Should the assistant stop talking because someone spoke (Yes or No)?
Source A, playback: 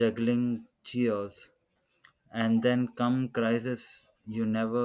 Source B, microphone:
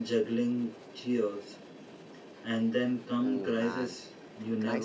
Yes